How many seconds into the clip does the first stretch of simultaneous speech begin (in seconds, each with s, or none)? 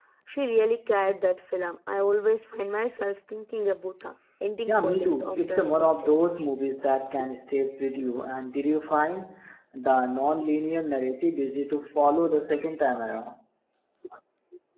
4.7 s